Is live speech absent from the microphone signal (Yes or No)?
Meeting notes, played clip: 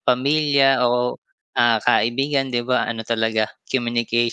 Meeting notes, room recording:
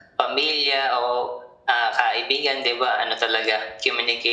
Yes